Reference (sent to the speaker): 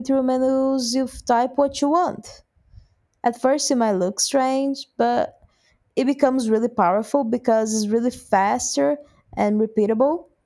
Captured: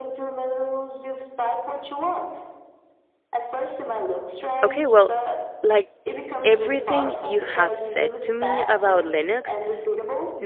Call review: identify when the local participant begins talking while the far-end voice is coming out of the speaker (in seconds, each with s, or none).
4.6 s